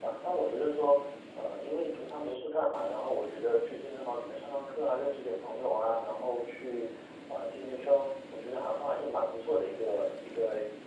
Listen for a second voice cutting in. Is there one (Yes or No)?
No